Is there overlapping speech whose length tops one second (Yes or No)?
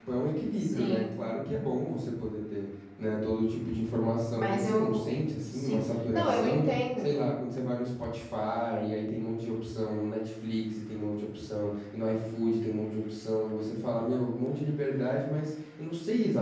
Yes